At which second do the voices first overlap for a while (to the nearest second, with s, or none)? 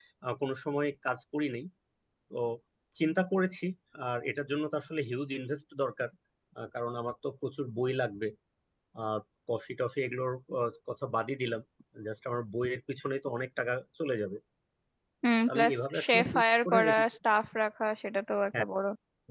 15 s